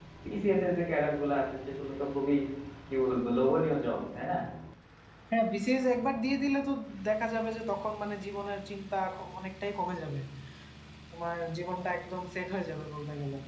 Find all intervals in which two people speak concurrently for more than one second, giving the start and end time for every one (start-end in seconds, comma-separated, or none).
none